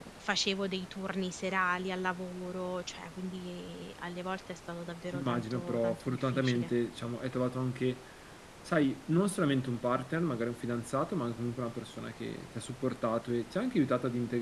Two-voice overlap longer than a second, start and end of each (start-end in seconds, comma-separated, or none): 5.1-6.7